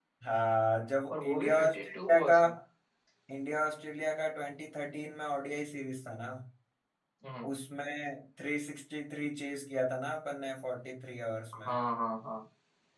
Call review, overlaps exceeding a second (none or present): present